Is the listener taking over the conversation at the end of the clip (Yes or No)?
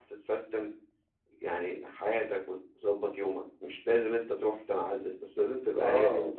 Yes